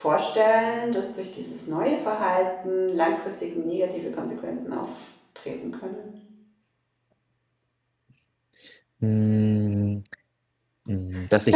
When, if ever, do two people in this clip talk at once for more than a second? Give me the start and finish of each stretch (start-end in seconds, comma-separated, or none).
none